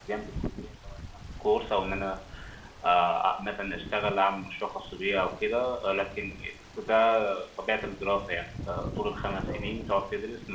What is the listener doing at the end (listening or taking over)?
listening